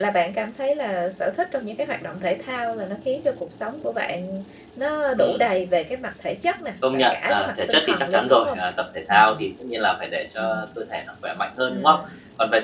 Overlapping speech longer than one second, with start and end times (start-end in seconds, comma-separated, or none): 6.9-8.6